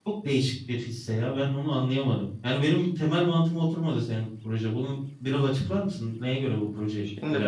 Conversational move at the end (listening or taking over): taking over